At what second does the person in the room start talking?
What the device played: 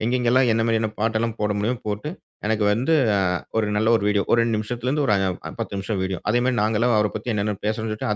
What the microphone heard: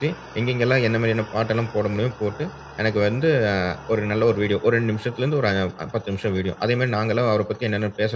none

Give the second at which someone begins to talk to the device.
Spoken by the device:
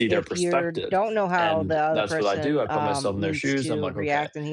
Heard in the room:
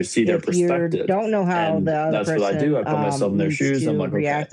none

